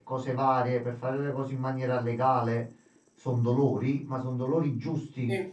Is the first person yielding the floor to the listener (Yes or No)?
No